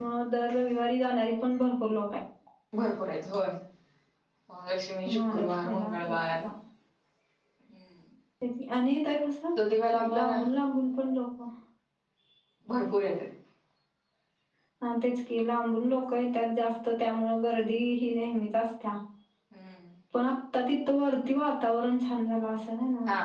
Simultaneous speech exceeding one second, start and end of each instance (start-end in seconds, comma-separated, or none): 5.1-6.4